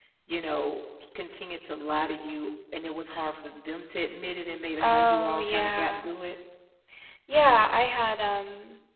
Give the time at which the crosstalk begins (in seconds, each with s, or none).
4.8 s